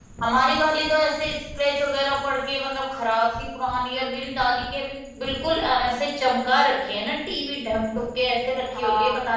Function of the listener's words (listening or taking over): taking over